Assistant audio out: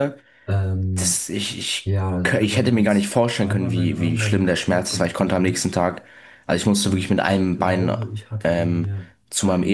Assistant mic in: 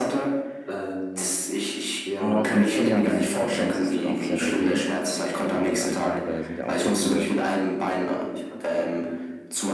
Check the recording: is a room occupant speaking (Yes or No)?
Yes